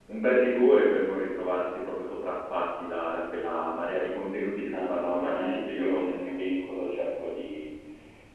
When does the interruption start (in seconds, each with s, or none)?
4.7 s